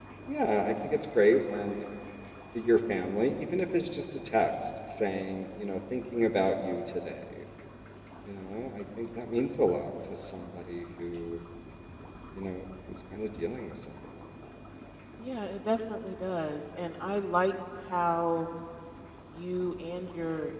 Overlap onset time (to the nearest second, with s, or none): none